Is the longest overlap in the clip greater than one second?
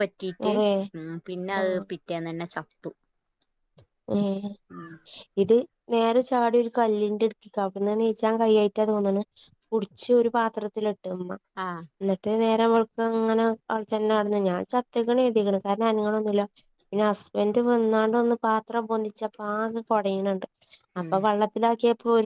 No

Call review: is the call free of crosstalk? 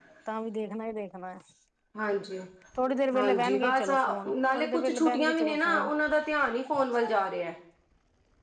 No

